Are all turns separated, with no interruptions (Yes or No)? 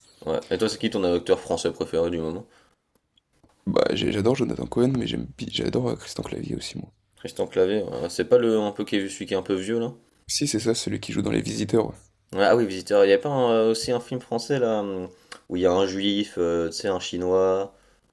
Yes